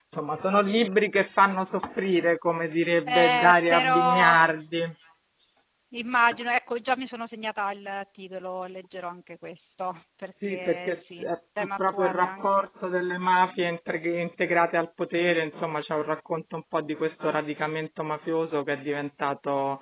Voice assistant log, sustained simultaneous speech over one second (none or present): present